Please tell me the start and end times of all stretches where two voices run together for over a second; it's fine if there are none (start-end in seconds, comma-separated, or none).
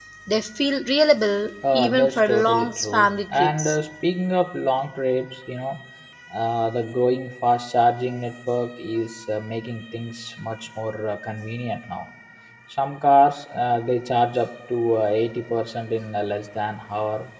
1.7-3.8